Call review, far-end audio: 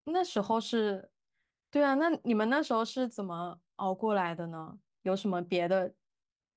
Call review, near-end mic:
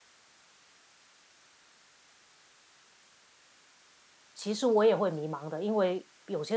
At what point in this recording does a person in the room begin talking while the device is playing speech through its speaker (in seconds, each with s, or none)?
4.3 s